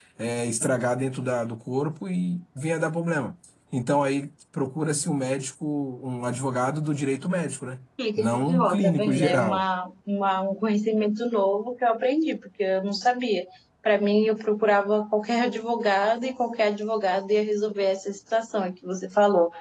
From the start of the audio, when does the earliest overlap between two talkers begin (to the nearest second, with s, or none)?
8 s